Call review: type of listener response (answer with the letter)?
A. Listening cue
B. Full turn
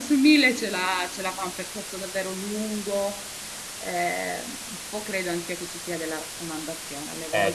B